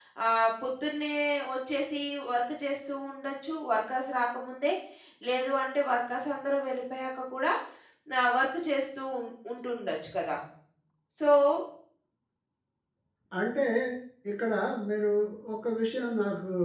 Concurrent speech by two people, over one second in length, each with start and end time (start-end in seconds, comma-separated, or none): none